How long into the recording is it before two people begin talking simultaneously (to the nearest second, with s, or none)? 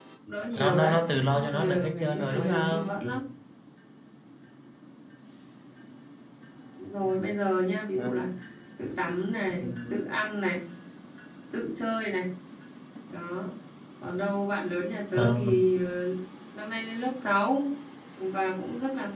1 s